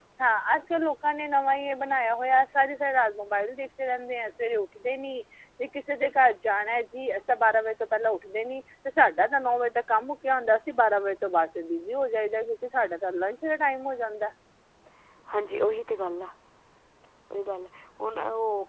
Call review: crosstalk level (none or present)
none